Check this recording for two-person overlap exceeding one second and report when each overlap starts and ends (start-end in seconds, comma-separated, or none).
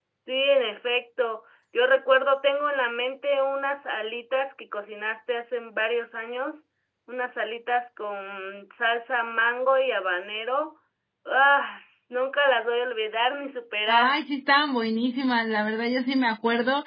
none